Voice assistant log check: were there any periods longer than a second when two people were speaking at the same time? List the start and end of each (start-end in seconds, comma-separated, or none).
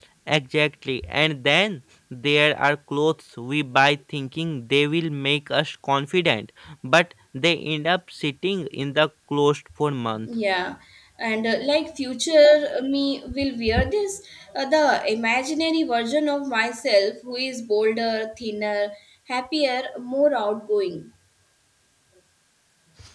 none